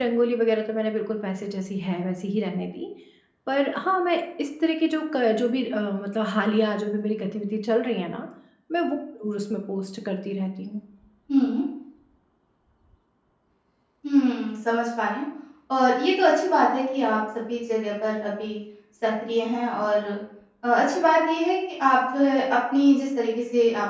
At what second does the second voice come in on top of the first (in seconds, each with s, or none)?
none